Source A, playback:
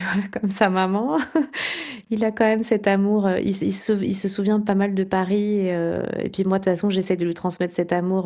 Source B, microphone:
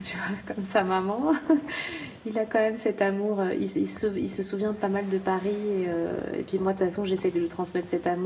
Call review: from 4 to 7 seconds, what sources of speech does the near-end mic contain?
echo only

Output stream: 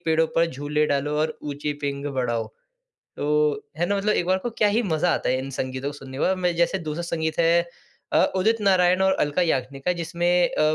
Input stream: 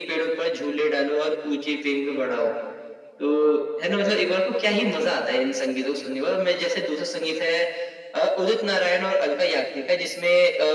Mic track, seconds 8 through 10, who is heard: echo only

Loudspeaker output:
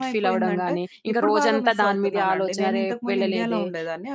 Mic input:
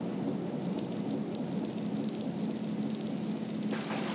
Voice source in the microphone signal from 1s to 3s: neither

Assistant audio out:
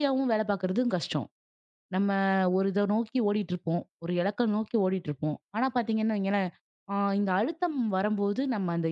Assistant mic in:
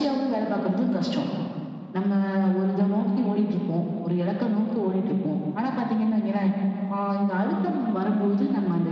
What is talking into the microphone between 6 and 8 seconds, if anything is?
echo only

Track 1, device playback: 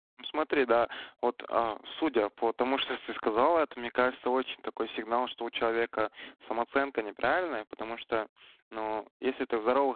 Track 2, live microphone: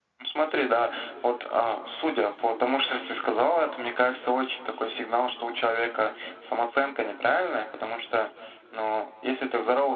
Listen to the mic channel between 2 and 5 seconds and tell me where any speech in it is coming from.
echo only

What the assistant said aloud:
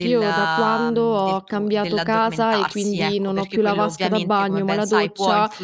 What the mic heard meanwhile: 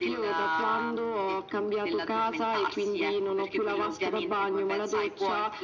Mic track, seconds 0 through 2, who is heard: echo only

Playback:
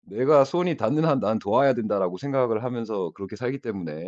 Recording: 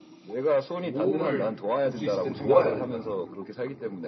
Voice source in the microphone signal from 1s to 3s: both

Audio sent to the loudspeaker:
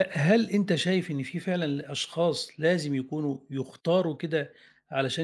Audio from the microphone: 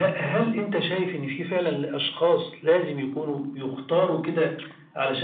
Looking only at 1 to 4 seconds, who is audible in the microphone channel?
echo only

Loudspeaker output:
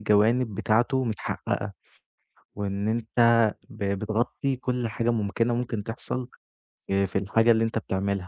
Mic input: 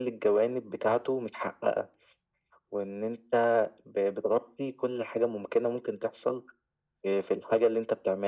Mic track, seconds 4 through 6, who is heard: echo only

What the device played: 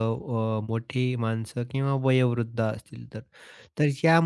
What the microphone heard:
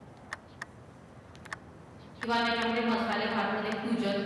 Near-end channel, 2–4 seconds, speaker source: user only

